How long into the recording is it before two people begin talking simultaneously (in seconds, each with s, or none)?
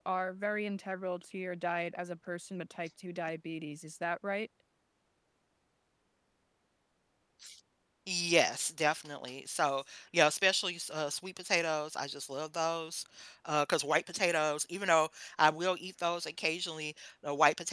none